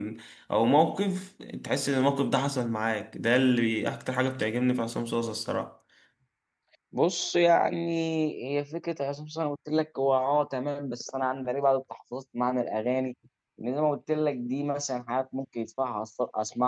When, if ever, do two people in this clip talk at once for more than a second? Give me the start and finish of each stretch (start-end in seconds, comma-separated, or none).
none